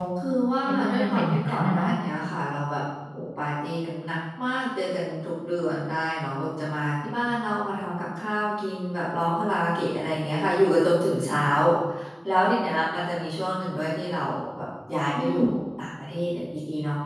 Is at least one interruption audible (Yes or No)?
Yes